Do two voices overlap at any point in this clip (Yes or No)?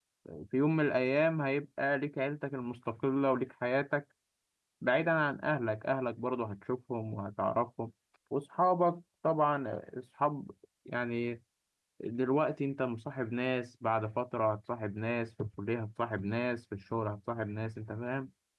No